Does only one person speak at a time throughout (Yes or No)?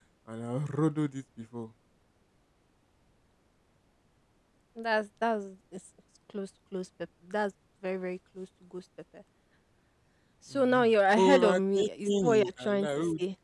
No